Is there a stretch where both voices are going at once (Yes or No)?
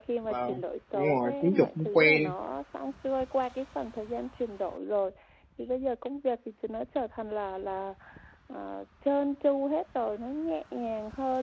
Yes